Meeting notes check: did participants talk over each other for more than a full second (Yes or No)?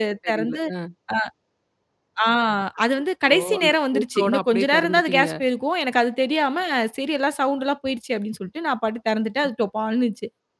Yes